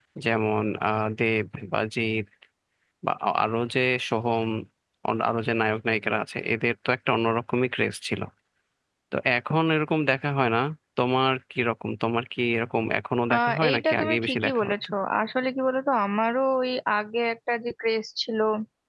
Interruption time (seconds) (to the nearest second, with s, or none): 13 s